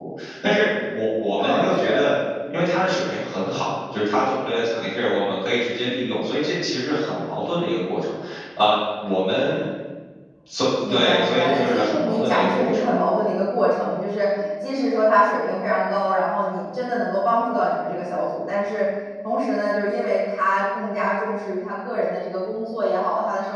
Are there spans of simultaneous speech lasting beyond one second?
Yes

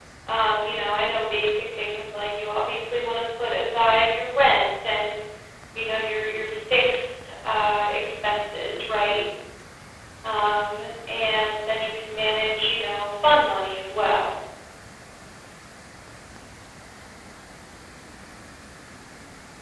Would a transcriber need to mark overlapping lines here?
No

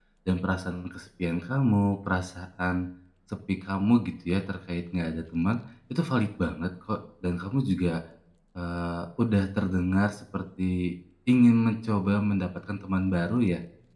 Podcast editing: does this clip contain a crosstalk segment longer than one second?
No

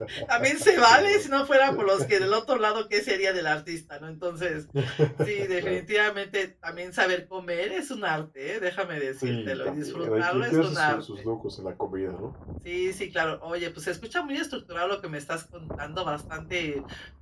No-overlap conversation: No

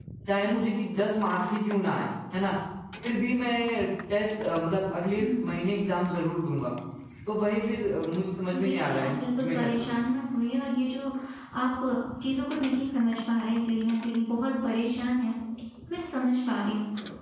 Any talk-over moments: Yes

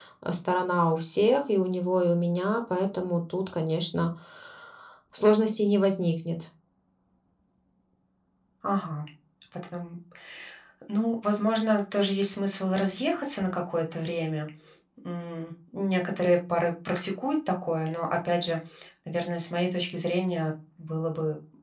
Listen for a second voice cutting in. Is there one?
No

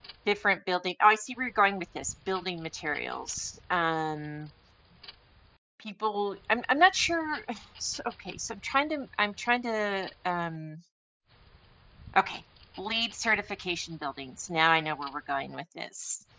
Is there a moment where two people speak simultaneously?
No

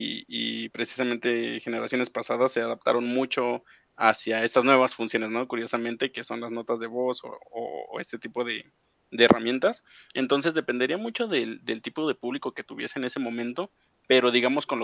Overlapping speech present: No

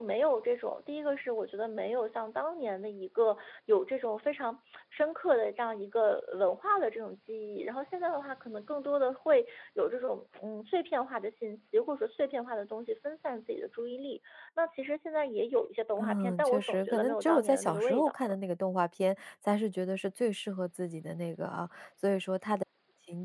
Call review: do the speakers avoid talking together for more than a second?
No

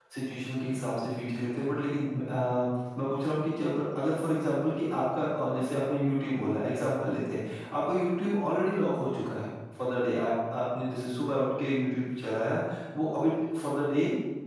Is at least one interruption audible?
No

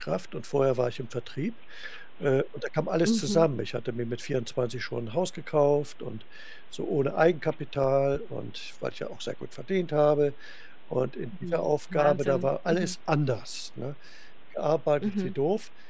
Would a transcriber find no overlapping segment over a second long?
No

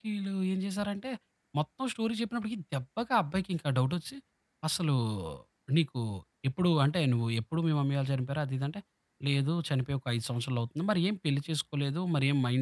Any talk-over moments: No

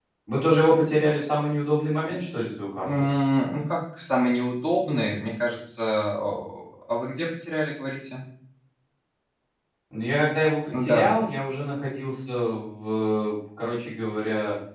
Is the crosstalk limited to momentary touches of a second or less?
Yes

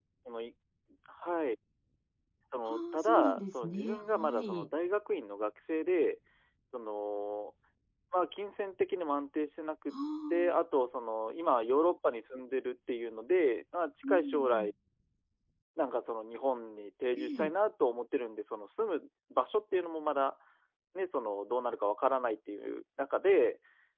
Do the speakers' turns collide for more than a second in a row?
Yes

